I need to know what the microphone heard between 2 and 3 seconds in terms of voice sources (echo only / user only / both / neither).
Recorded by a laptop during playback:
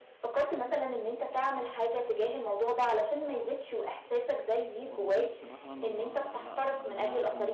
echo only